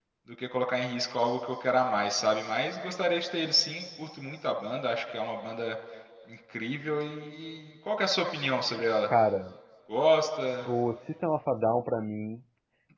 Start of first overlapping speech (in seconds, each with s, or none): none